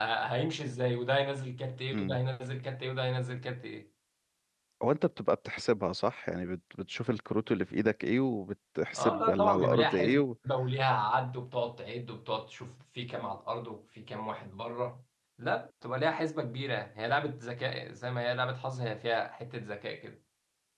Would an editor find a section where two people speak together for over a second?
Yes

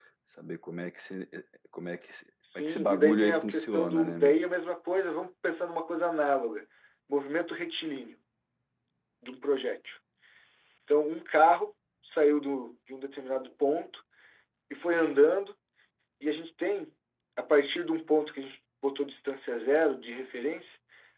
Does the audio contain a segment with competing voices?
Yes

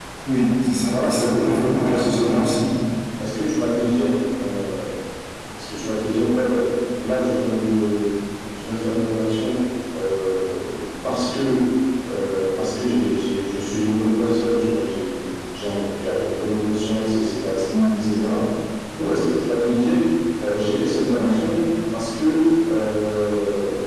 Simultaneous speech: Yes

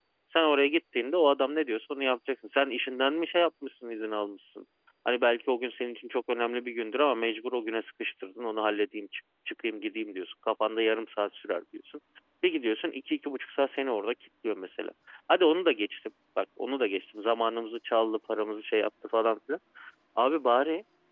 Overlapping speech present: No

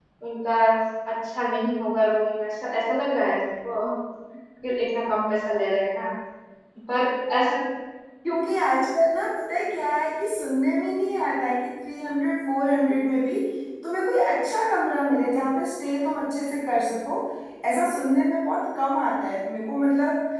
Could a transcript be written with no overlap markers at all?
Yes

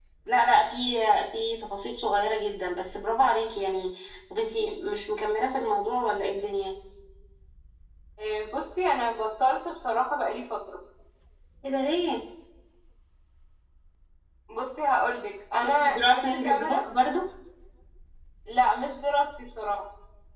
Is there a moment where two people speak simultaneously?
Yes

